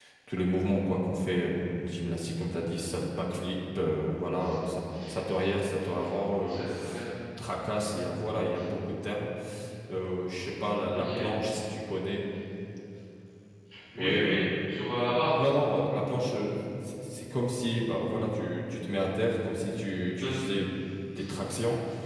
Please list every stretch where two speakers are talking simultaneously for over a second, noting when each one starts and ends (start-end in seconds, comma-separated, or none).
none